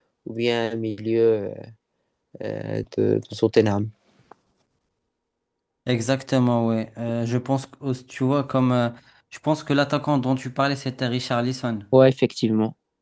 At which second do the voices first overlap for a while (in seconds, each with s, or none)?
none